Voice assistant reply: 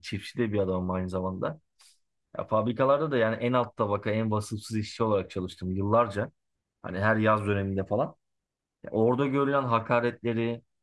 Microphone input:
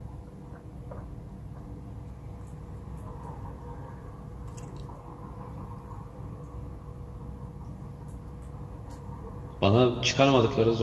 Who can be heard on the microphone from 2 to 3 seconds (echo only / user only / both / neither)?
neither